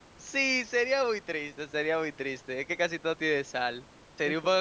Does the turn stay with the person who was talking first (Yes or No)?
Yes